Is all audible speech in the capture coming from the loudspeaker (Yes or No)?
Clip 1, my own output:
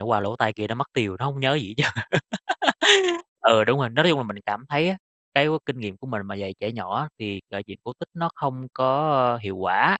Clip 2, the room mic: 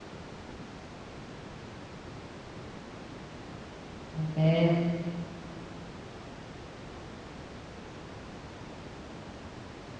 No